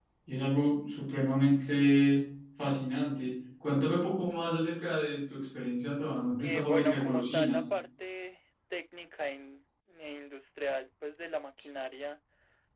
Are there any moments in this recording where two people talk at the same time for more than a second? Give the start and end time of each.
6.4-7.6

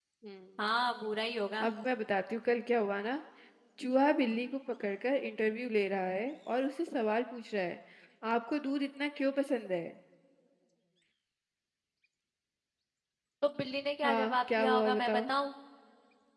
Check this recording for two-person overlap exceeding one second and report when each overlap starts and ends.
14.0-15.3

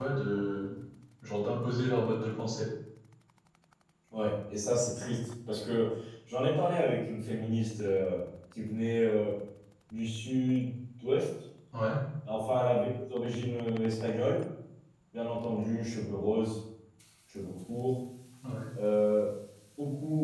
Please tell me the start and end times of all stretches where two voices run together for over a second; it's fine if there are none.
none

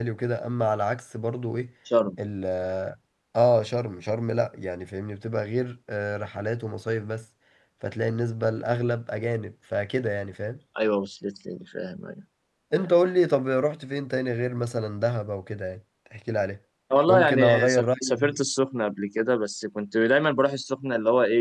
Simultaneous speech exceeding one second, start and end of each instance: 17.1-18.4

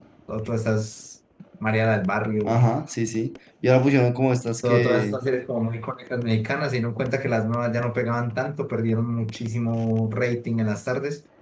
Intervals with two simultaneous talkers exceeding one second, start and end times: none

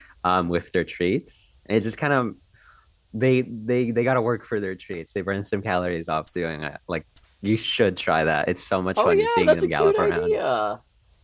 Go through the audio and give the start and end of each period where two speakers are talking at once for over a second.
9.0-10.4

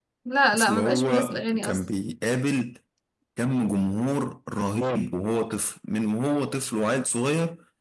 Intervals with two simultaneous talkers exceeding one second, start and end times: 0.5-1.8

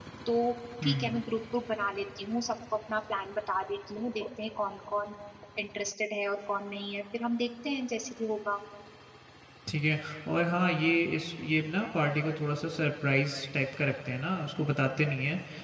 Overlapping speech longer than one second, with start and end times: none

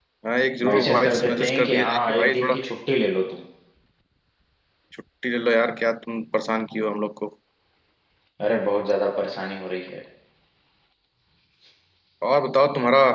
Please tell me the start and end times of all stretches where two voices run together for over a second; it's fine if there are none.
0.6-2.5

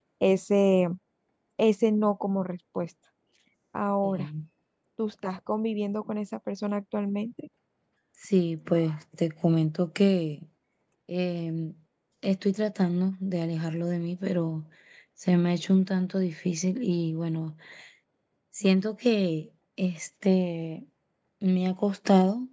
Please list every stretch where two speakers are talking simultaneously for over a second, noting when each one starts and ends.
none

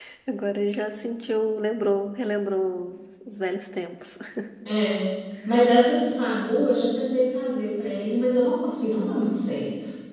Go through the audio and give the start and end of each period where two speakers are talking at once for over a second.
none

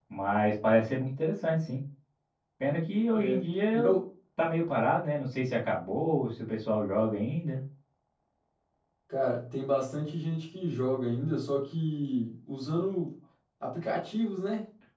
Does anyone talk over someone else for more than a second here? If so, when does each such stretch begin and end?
none

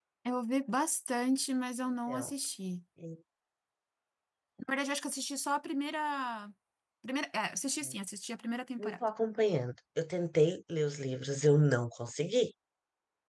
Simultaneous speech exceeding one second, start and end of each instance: none

